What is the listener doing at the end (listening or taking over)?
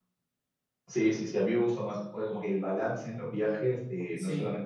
listening